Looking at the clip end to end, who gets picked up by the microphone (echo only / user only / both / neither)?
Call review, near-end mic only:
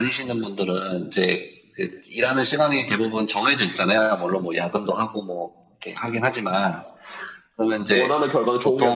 both